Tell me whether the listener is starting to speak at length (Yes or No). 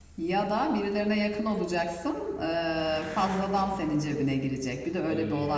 Yes